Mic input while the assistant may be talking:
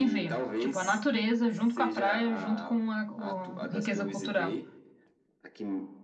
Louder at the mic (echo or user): user